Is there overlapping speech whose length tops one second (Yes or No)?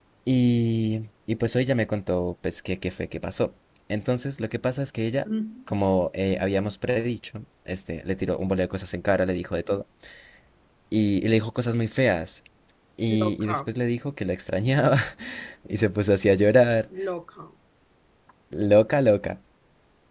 No